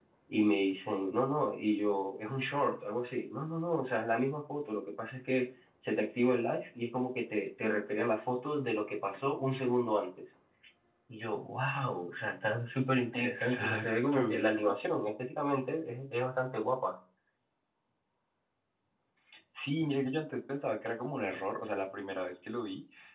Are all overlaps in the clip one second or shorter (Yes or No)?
No